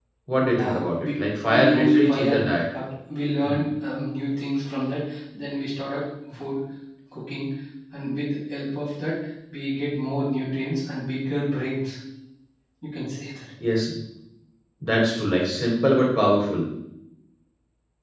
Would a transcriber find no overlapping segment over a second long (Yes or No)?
No